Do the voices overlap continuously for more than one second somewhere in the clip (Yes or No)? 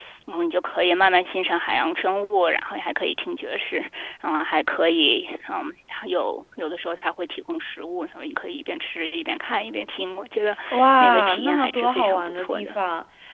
Yes